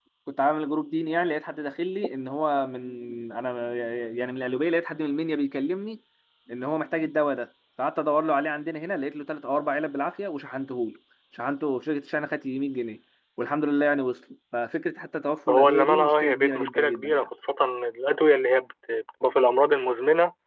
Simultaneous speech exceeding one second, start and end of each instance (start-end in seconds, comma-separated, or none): 15.5-17.3